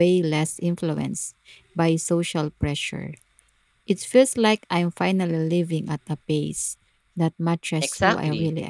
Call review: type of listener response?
taking over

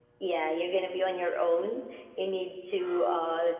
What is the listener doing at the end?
listening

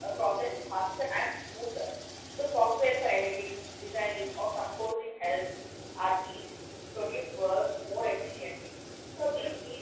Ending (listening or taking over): listening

